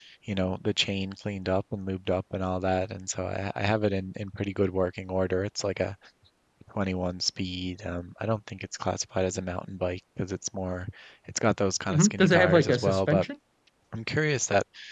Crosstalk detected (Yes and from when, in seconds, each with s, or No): Yes, from 11.9 s